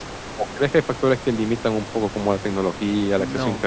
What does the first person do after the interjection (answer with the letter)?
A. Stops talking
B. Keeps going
B